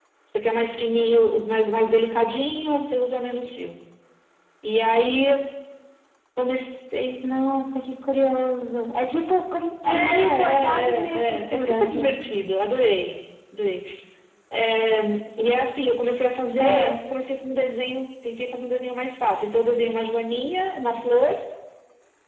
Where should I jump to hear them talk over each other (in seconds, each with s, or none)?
9.9 s